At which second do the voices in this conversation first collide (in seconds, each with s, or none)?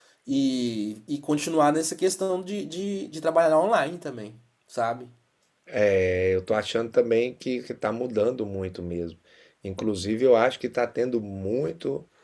none